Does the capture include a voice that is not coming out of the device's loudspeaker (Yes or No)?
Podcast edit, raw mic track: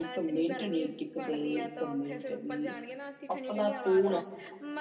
Yes